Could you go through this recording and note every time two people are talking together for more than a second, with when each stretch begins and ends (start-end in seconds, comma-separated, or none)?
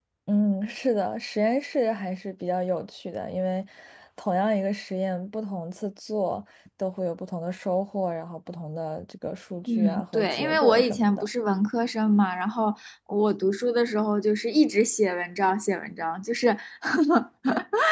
9.8-11.3